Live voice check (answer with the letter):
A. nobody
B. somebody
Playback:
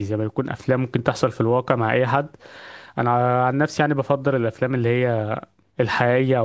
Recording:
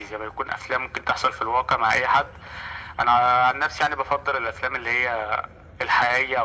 A